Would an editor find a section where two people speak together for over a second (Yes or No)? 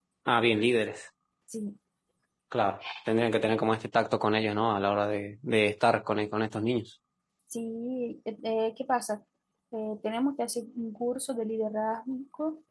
No